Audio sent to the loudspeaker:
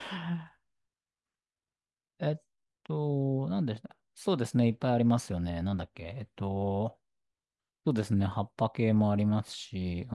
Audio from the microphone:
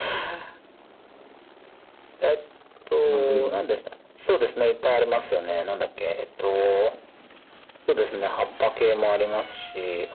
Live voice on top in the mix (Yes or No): No